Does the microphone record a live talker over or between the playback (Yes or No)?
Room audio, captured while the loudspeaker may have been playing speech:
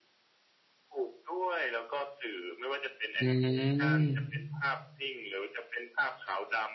Yes